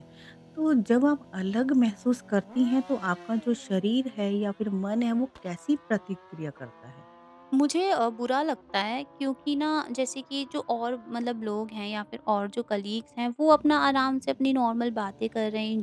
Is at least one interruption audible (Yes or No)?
No